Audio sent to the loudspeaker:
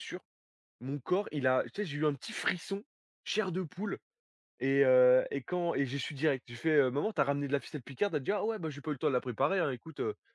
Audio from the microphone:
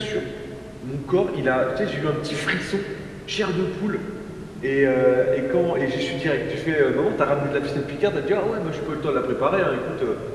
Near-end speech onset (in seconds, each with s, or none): none